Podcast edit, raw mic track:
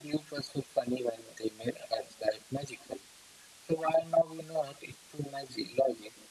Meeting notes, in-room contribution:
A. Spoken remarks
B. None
B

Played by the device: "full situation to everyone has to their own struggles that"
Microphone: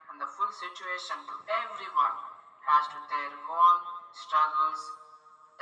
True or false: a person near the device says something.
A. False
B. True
A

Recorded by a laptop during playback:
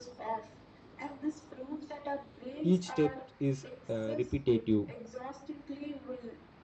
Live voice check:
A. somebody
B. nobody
A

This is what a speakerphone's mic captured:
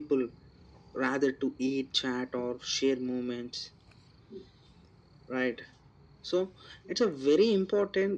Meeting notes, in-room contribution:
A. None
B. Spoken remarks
A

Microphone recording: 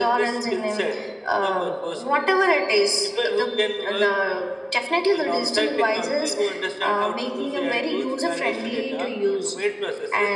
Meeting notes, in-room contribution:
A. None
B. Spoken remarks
A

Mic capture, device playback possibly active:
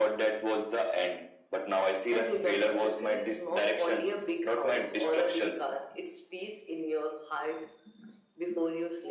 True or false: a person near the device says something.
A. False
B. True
A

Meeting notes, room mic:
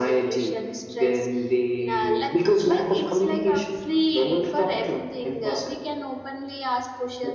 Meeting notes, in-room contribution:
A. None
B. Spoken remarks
A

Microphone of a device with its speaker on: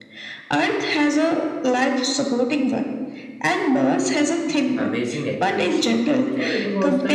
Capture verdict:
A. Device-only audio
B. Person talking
B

